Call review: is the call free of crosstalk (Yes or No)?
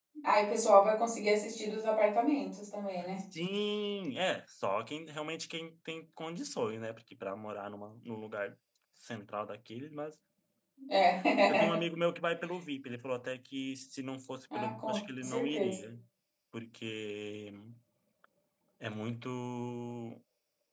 No